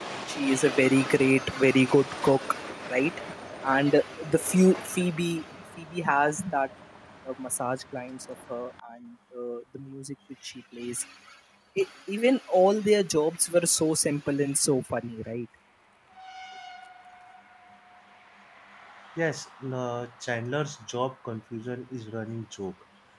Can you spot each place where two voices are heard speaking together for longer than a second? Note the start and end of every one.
none

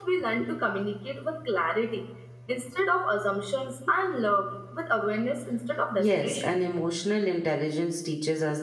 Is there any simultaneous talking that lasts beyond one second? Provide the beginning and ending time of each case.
none

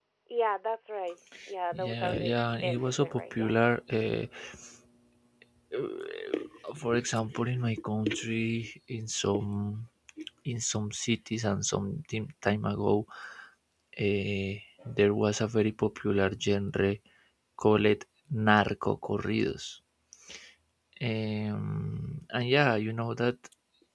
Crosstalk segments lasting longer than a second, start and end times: 1.7-3.7

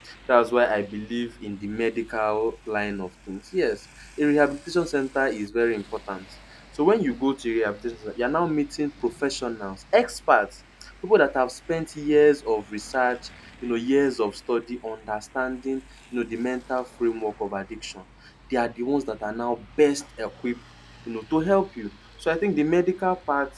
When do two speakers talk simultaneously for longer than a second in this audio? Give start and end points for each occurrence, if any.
none

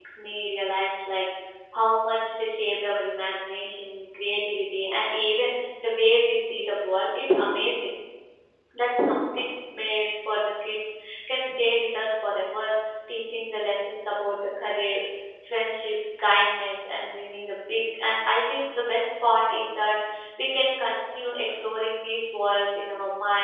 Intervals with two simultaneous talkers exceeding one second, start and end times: none

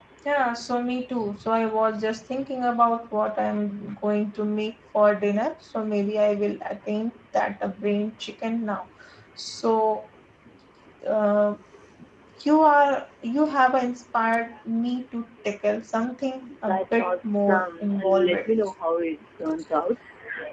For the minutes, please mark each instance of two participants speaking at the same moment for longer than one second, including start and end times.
16.7-18.3

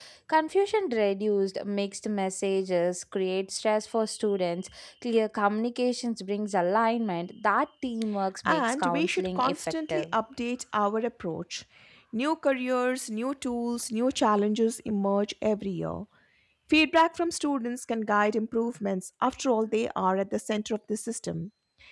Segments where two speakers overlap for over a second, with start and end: 8.4-10.0

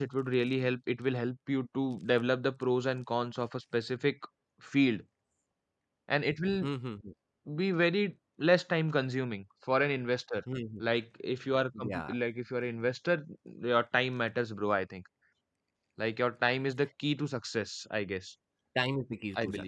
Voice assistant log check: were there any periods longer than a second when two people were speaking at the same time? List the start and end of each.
none

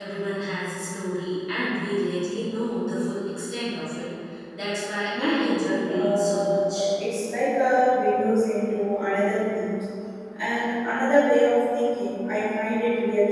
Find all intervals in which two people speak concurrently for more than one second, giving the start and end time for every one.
5.2-6.8

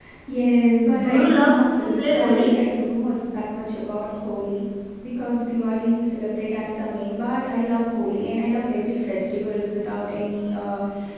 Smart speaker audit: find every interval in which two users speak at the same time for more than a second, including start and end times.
1.0-2.5

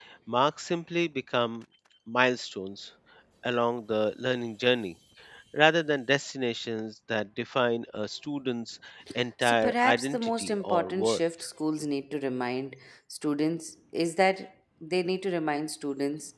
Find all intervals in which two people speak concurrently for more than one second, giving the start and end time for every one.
9.4-11.2

